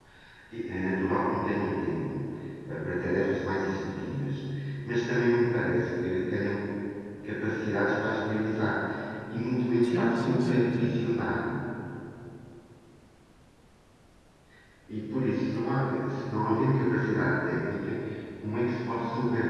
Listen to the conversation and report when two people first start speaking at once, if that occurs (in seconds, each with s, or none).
9.9 s